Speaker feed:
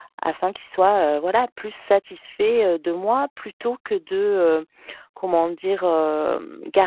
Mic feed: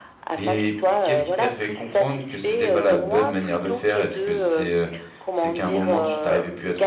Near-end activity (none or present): present